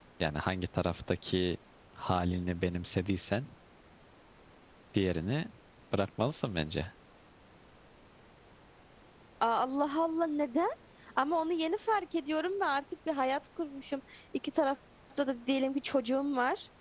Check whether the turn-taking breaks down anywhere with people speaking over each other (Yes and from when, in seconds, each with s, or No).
No